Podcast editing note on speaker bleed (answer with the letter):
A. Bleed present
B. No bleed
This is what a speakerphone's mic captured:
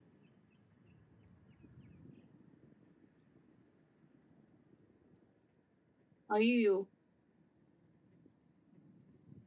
B